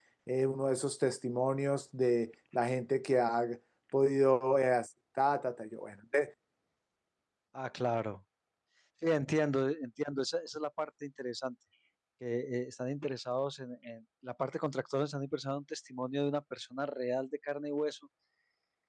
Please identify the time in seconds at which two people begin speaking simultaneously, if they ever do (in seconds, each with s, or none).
none